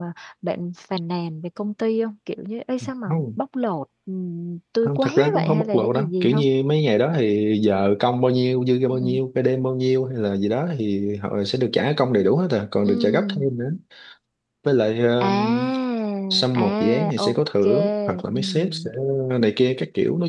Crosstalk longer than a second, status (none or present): present